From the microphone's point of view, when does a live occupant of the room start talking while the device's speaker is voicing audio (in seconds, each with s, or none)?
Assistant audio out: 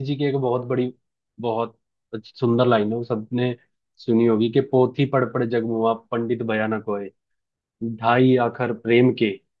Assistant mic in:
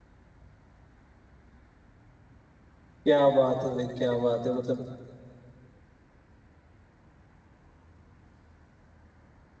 3.1 s